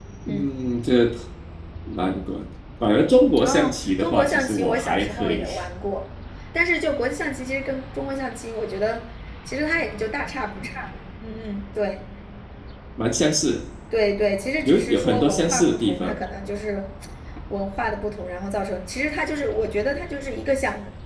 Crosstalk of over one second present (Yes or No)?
Yes